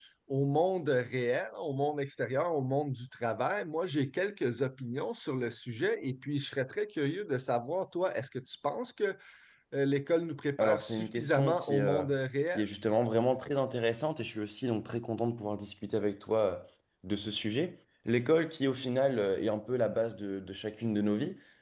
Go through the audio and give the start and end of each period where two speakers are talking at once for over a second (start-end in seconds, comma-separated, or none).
10.6-12.1